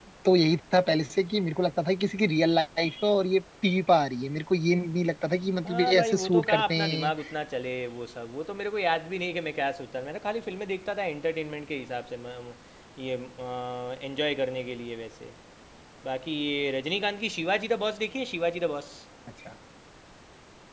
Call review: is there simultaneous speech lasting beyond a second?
Yes, from 5.6 s

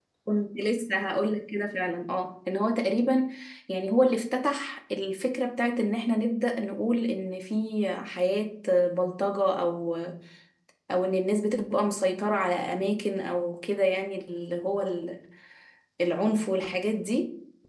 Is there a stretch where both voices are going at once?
No

